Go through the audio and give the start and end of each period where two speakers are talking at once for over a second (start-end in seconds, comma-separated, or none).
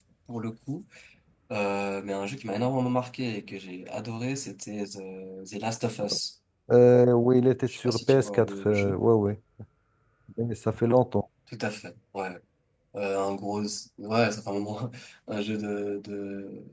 7.7-9.0